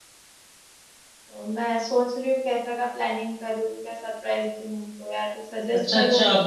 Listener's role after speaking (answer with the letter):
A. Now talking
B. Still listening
A